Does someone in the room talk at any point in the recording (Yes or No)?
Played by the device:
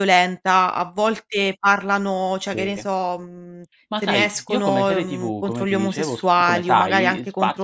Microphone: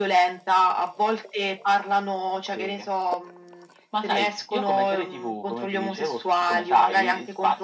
No